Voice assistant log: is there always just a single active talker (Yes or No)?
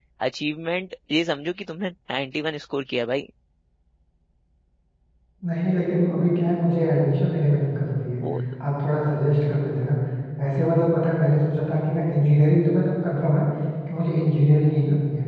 Yes